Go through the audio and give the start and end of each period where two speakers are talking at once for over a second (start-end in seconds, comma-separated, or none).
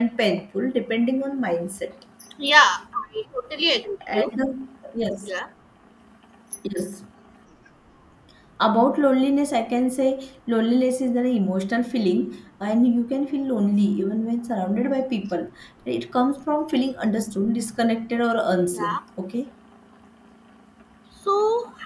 none